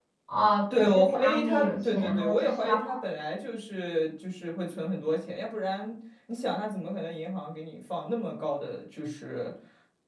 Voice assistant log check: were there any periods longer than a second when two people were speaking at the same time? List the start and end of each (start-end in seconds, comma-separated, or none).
0.7-2.8